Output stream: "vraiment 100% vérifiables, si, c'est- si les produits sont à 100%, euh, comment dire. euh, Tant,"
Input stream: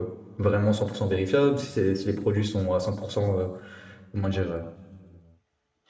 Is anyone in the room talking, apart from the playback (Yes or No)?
No